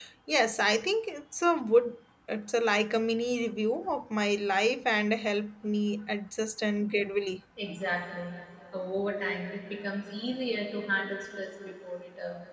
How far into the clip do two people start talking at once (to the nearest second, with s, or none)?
none